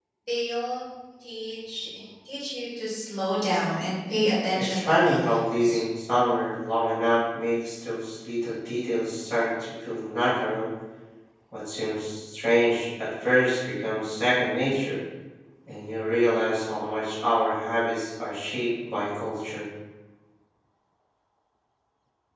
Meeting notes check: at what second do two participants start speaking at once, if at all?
5 s

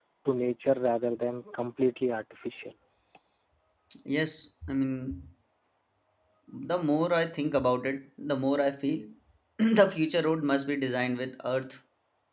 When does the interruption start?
none

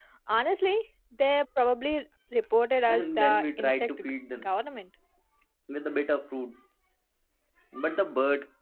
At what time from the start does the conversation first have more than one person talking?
3 s

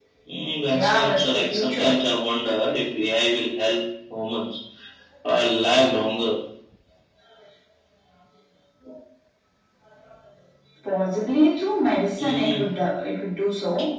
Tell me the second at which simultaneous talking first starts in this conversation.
1 s

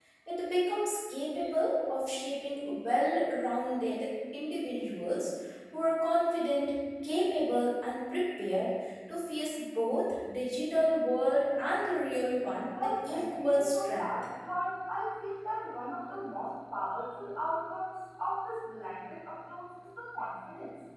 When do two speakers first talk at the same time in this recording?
13 s

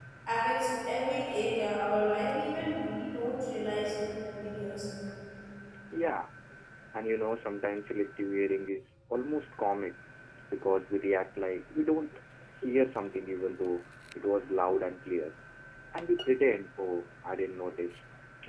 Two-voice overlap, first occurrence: none

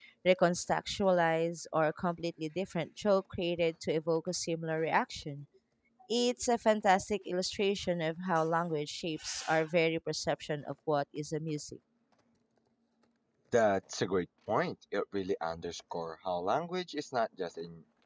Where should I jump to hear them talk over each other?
none

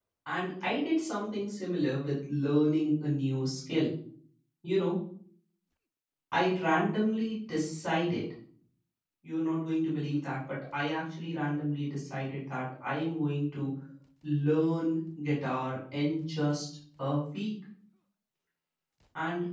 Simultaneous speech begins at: none

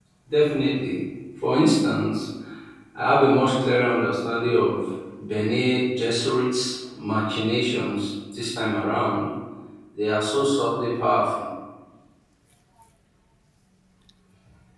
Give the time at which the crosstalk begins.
none

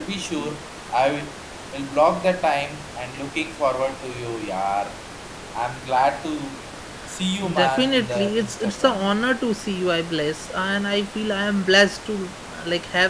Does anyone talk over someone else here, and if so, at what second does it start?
8 s

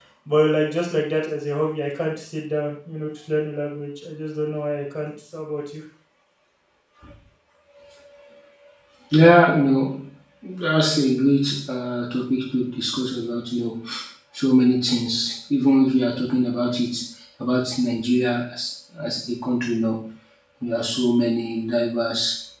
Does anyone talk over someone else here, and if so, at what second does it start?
none

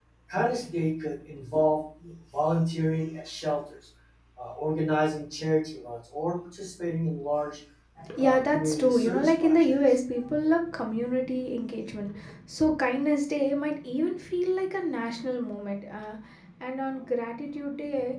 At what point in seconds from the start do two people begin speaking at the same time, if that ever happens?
8 s

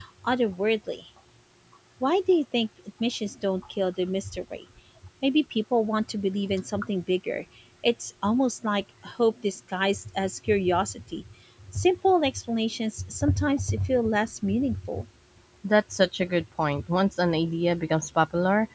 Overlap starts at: none

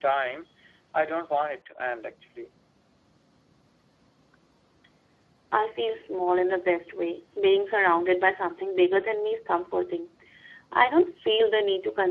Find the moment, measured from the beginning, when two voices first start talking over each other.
none

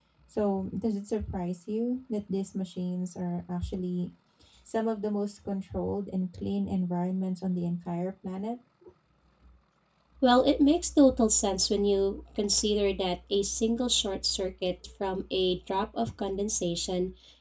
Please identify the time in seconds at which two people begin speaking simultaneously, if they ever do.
none

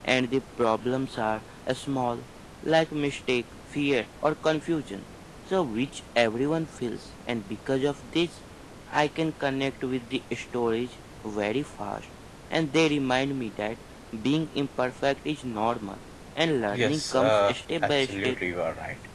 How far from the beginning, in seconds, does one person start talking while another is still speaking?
17 s

